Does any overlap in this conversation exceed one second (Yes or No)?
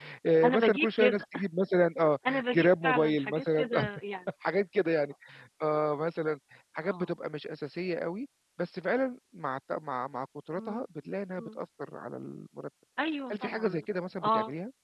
Yes